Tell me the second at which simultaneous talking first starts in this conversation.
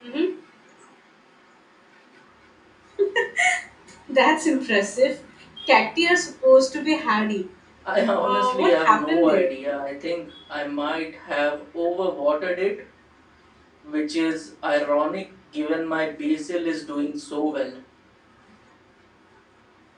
8.2 s

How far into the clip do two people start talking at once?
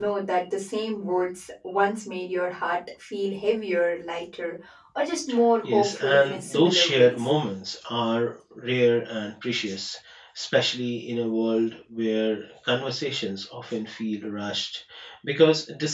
5.6 s

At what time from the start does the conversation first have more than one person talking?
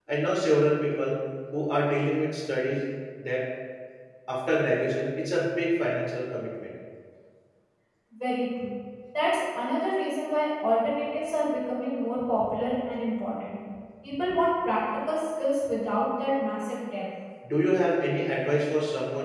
none

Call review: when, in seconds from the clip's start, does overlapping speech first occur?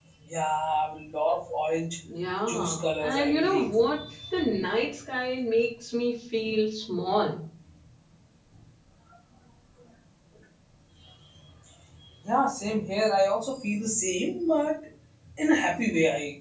2.5 s

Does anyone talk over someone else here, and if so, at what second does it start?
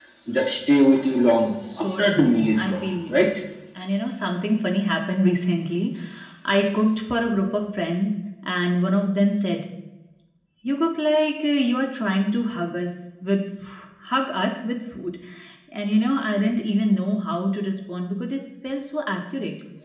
1.7 s

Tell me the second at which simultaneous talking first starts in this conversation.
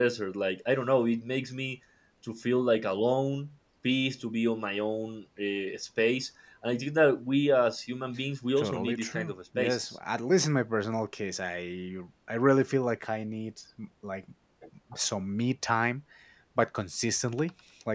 8.6 s

